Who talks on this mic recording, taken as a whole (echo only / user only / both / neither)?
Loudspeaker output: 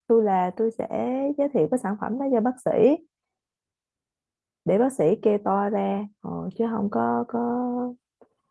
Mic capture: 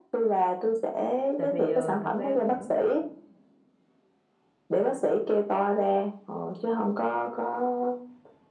both